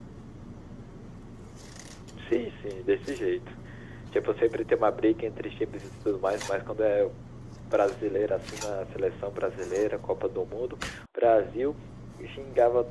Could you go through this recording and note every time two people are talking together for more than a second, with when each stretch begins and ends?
none

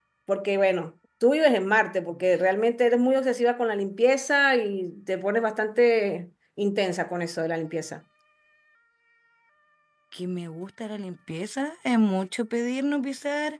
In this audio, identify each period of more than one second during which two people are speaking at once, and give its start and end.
none

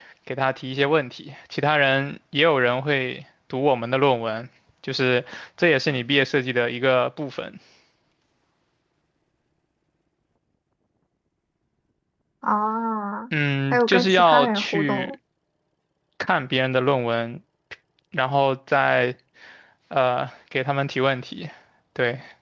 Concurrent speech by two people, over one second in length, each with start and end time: 13.7-15.2

